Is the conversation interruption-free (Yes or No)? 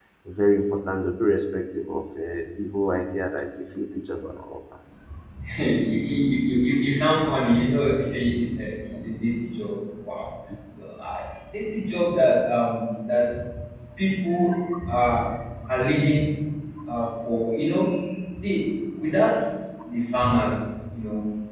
Yes